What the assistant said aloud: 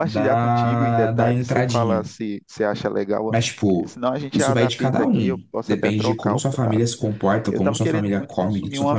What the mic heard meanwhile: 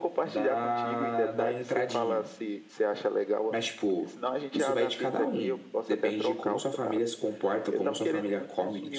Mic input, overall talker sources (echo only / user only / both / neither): echo only